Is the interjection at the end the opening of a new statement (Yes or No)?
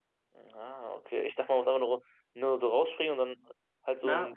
Yes